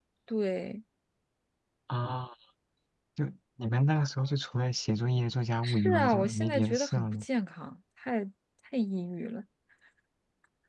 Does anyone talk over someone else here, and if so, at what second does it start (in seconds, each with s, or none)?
5.6 s